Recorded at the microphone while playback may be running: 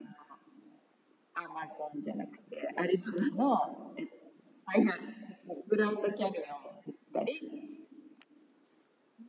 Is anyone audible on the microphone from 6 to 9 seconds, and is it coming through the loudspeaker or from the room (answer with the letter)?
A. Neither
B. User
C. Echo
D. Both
C